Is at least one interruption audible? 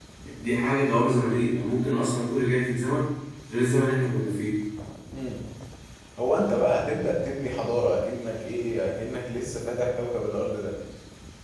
No

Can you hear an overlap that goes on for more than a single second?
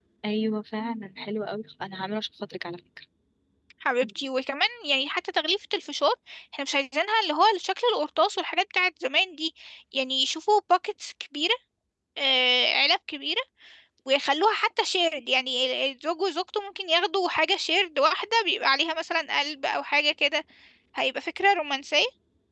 No

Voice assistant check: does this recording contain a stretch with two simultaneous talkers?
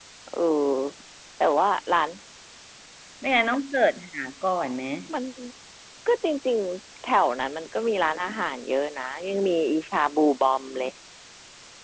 No

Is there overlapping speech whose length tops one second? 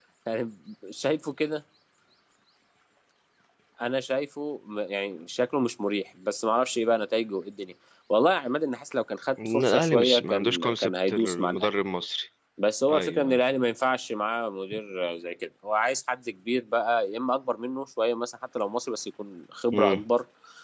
Yes, from 9.5 s

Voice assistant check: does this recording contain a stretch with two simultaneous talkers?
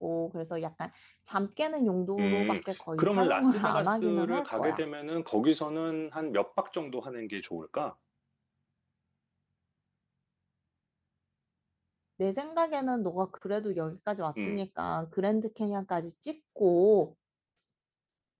Yes, from 2.2 s

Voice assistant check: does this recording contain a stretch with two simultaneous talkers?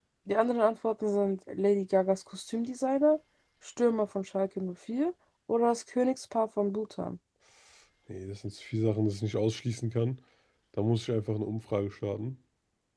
No

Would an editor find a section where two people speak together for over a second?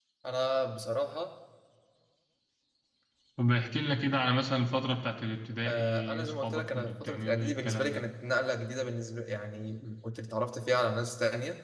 Yes, from 5.6 s

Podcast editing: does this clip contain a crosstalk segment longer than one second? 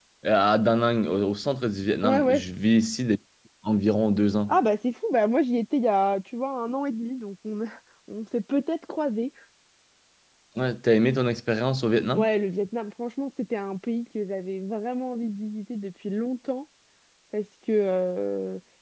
No

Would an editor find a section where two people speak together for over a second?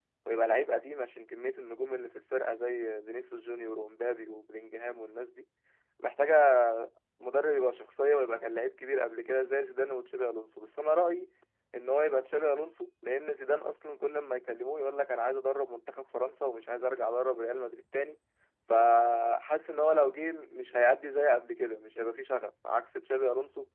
No

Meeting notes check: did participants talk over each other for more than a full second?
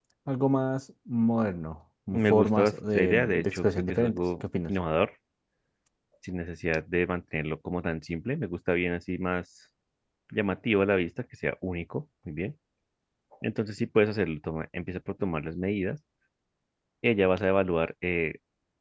Yes, from 2.1 s

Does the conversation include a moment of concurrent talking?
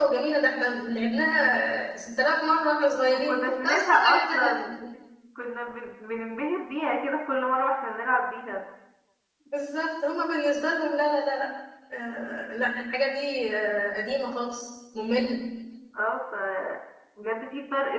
Yes, from 3.1 s

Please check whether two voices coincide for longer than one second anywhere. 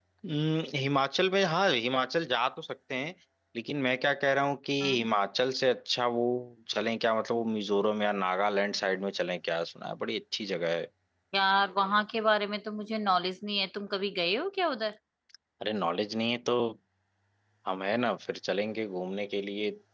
No

